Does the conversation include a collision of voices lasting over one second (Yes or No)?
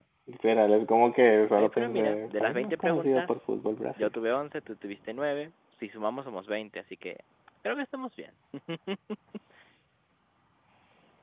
Yes